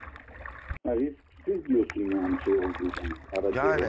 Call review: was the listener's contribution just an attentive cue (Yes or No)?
No